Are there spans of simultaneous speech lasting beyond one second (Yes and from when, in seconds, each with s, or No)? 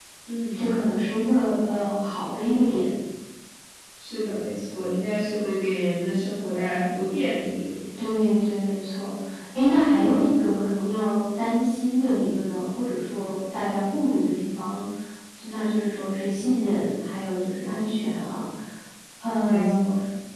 No